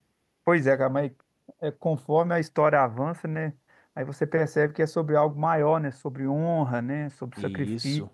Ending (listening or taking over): listening